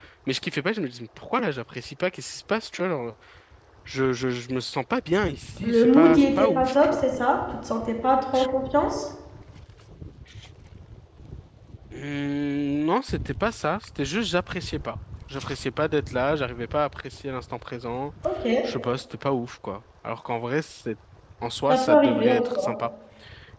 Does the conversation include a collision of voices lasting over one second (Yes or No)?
Yes